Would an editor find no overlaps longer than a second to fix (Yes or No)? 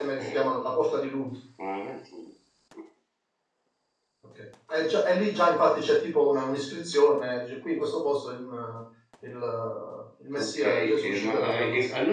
No